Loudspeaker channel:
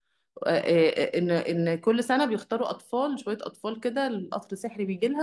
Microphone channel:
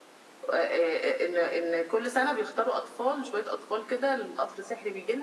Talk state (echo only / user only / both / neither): echo only